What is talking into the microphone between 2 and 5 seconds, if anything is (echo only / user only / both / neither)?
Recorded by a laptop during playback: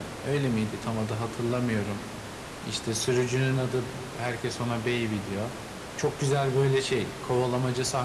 echo only